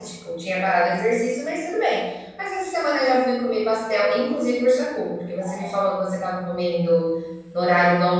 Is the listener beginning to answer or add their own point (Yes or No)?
No